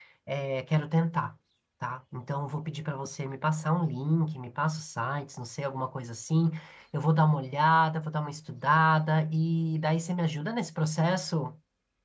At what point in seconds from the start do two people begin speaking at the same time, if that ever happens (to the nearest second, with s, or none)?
none